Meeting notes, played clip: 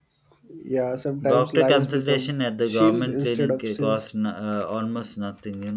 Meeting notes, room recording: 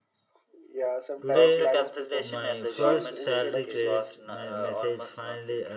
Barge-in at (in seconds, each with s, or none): 1.2 s